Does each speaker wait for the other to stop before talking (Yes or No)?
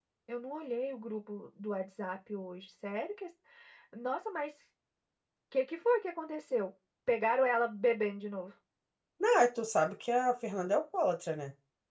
Yes